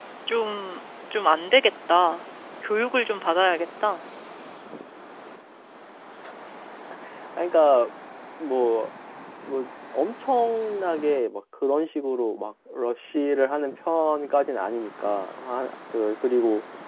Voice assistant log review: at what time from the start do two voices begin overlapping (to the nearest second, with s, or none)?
none